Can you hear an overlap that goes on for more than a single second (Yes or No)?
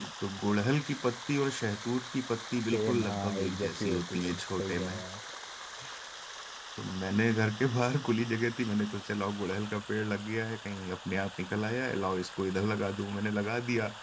Yes